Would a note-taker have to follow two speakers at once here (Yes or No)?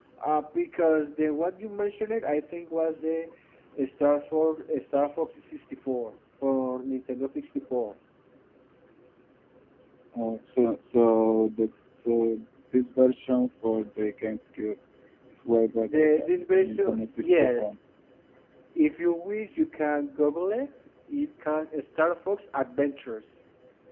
Yes